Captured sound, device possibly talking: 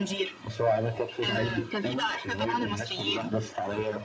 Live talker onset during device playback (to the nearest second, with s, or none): none